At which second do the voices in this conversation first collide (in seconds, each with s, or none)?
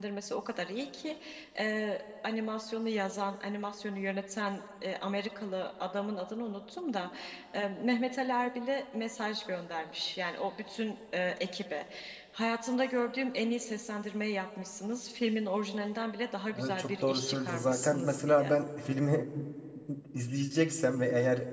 16.5 s